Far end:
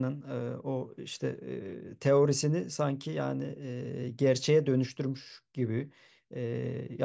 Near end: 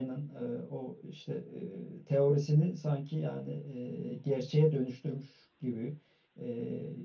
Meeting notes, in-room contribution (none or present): none